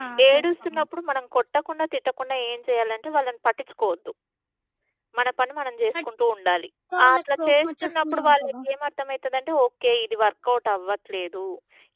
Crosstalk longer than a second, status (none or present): present